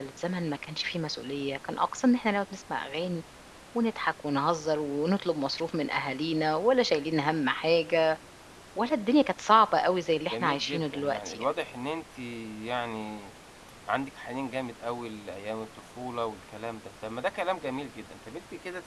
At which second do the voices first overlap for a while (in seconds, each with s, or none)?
10.3 s